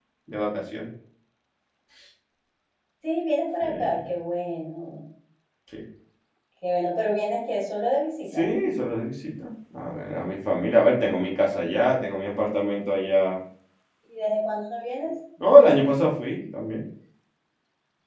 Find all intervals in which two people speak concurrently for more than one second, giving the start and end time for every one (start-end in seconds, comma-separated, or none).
none